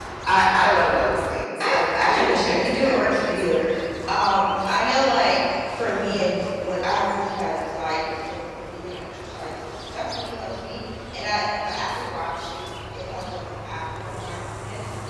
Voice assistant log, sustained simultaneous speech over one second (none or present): present